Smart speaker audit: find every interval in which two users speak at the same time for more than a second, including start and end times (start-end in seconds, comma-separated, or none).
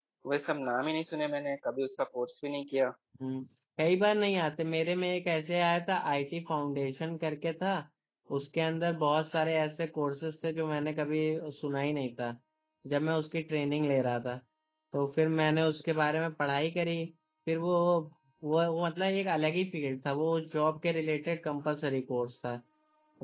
none